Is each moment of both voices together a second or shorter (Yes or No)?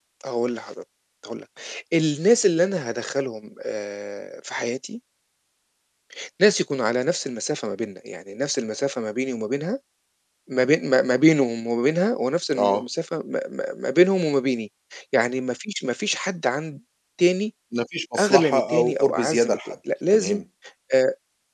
No